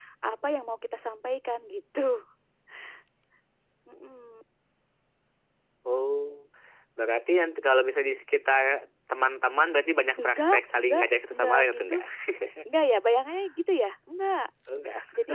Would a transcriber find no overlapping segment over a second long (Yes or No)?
No